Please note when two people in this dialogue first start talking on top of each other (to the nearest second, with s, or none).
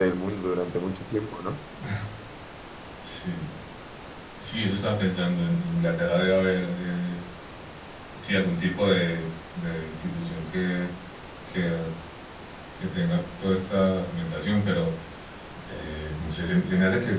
none